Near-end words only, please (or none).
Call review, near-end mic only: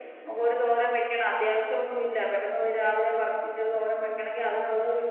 none